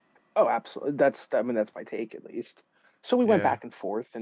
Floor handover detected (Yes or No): No